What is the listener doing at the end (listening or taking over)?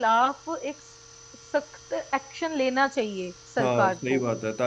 taking over